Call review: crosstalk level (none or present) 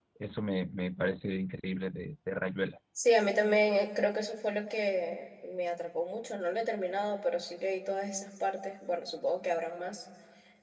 none